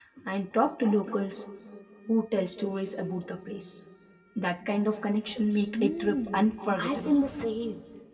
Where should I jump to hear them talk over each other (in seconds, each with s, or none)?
5.7 s